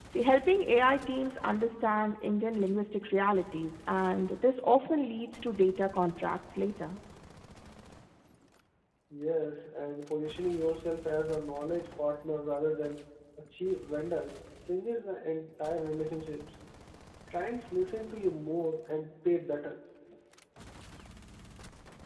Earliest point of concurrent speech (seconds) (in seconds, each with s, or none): none